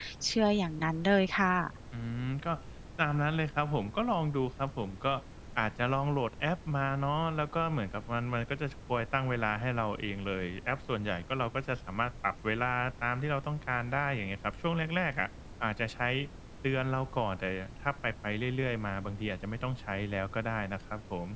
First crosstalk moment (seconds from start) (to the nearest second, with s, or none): none